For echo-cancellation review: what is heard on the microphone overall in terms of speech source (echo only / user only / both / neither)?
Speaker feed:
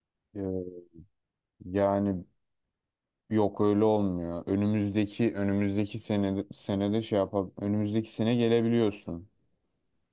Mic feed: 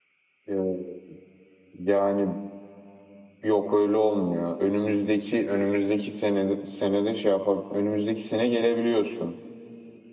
echo only